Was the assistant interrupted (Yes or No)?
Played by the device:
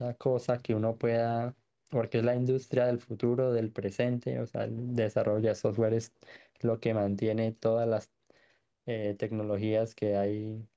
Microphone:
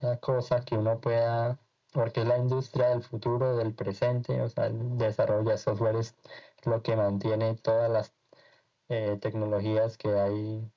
No